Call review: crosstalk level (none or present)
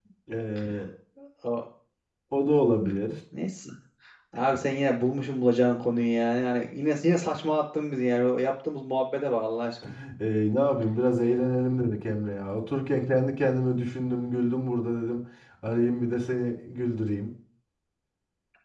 none